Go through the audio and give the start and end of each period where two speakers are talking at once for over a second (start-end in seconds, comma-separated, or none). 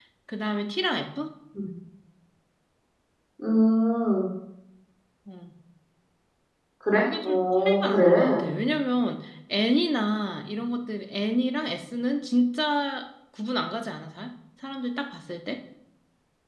7.0-8.4